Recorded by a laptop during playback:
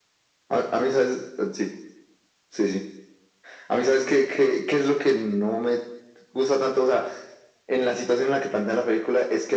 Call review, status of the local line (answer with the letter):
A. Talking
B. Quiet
B